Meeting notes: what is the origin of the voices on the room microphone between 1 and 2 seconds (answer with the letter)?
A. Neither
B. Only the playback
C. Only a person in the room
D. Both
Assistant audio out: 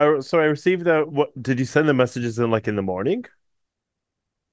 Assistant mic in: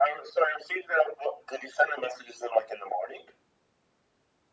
B